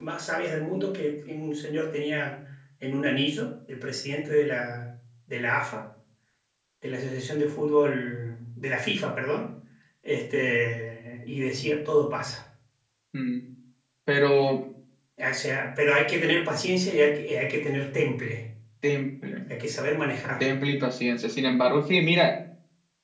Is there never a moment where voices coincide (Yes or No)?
Yes